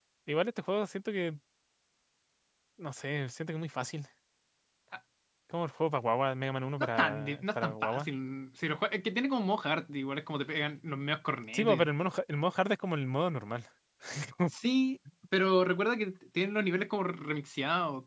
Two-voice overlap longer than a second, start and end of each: 6.8-8.1

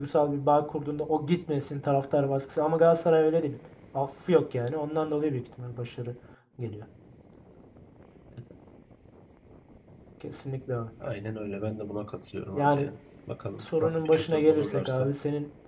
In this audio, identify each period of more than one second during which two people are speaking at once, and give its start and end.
13.6-15.1

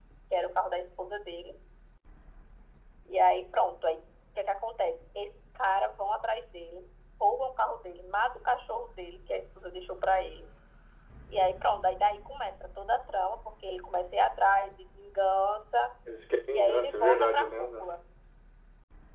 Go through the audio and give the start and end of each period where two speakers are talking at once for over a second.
16.5-17.9

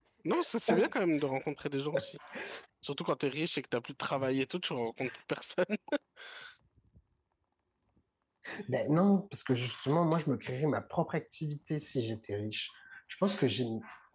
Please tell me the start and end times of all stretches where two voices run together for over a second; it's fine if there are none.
none

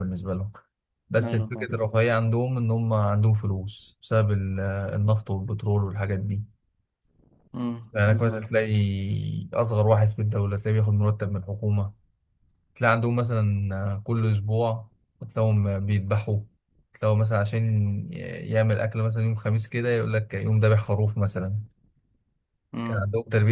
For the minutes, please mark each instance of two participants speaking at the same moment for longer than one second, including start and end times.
none

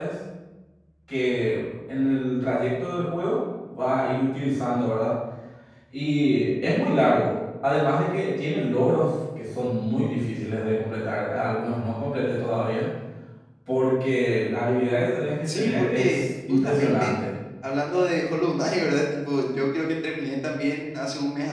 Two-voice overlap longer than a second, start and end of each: 15.5-17.1

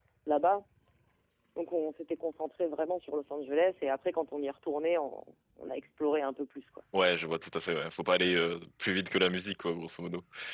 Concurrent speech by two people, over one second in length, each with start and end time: none

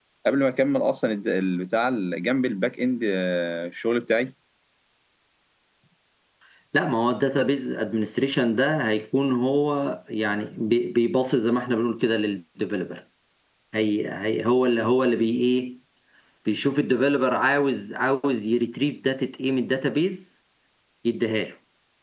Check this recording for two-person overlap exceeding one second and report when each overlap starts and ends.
none

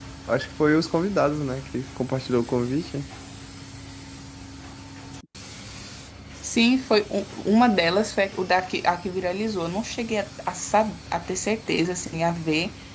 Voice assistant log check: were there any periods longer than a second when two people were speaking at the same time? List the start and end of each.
none

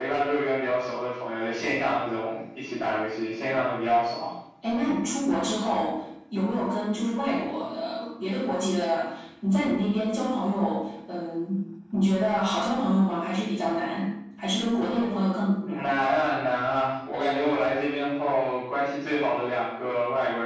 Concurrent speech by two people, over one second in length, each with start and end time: none

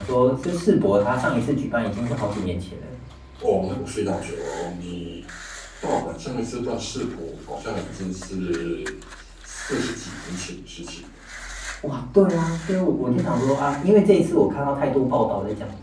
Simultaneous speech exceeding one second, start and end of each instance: none

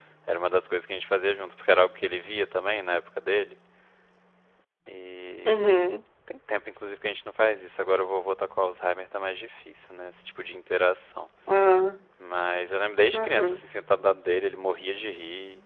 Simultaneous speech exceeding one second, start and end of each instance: none

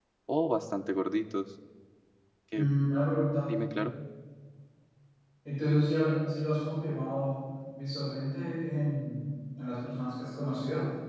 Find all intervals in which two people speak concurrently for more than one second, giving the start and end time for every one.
none

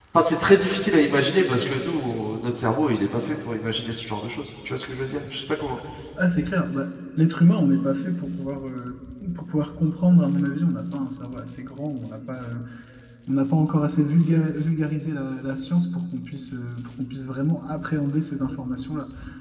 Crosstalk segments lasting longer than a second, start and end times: none

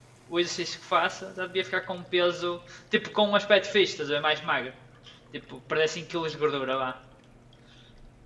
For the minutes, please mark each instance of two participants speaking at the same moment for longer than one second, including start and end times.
none

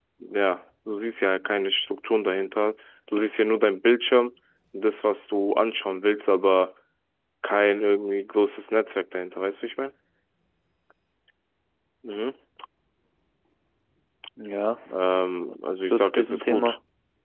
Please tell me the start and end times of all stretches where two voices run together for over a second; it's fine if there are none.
15.5-16.8

